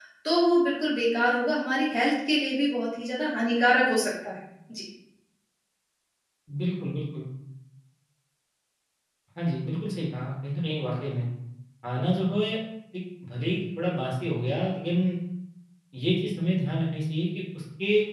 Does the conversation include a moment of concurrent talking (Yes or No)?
No